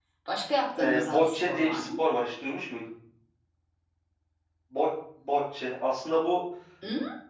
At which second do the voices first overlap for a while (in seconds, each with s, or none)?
0.8 s